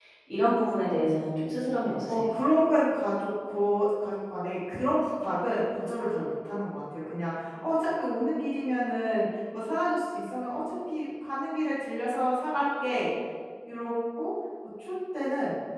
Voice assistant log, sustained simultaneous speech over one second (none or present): none